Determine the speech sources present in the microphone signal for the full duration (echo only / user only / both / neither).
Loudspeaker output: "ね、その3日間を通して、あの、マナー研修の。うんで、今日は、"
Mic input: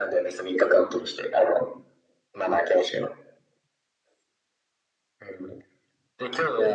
echo only